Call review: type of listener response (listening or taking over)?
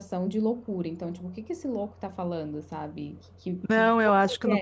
taking over